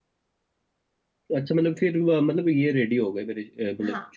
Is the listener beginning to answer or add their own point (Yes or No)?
Yes